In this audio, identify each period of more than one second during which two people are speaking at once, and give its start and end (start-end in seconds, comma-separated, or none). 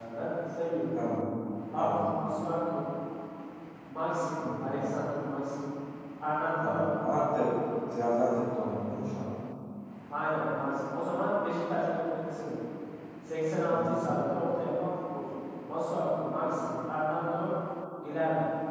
none